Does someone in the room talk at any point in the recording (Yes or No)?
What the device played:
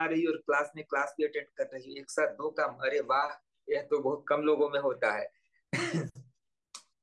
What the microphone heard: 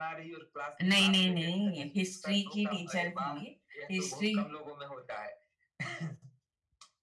Yes